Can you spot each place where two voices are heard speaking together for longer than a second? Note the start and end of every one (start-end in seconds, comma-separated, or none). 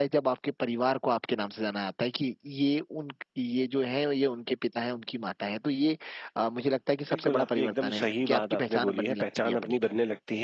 7.1-9.7